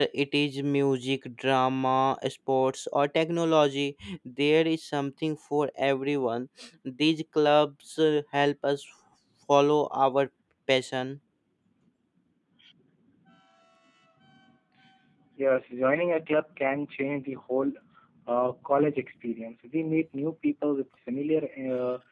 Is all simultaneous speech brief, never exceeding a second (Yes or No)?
Yes